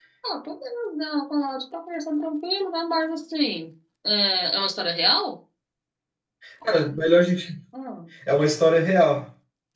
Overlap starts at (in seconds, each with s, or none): none